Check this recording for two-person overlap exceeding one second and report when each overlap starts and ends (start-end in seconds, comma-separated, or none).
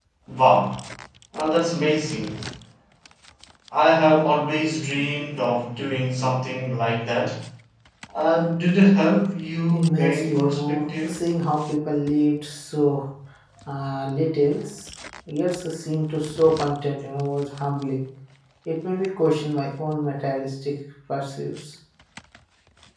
9.7-11.1